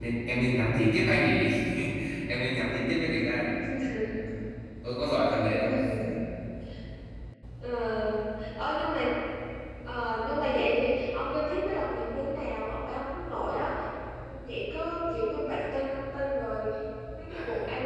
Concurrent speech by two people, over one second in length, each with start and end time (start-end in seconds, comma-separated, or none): none